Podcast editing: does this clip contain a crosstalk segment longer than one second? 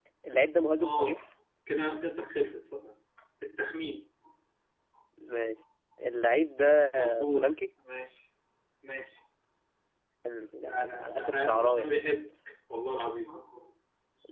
Yes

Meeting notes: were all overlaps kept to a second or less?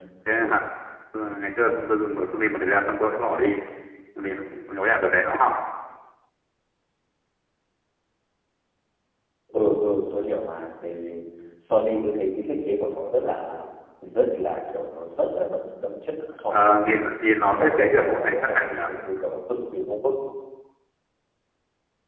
No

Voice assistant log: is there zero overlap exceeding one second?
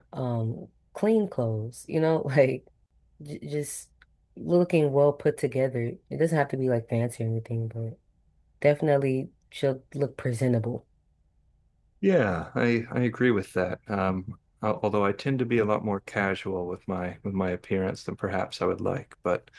Yes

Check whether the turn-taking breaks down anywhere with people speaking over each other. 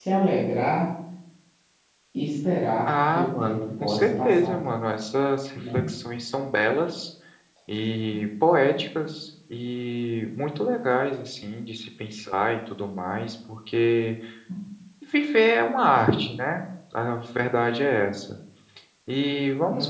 Yes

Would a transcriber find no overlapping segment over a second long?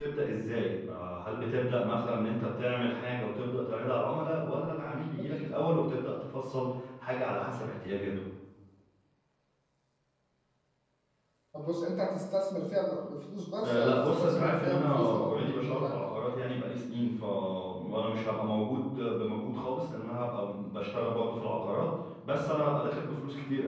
No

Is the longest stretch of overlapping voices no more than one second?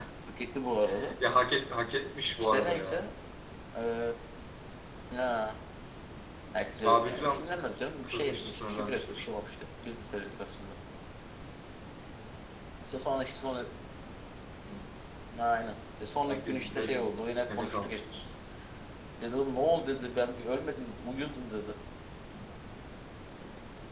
No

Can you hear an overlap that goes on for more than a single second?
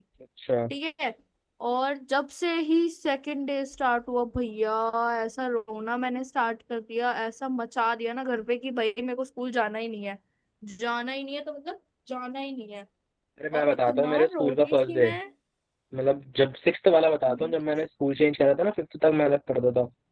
Yes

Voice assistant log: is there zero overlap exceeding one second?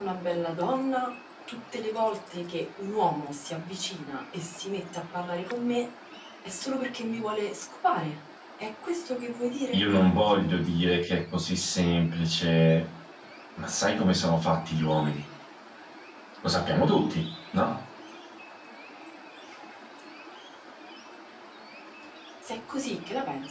Yes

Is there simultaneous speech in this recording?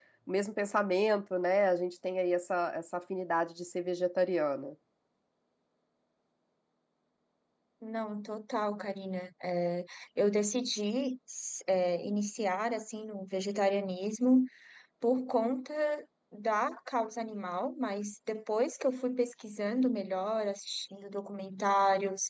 No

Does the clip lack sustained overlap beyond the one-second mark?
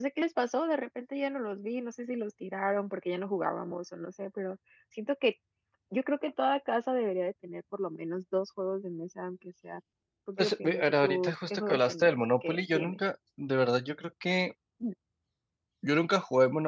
No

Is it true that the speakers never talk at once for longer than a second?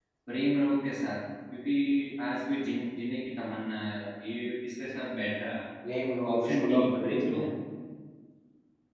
No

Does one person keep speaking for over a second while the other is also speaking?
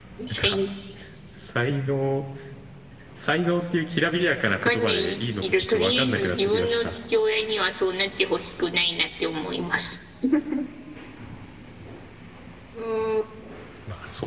Yes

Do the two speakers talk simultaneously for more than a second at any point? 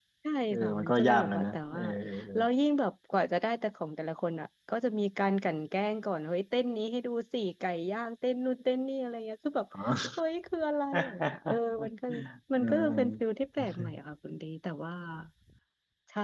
Yes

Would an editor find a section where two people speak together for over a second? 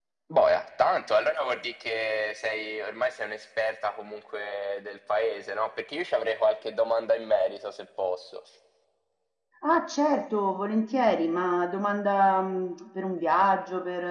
No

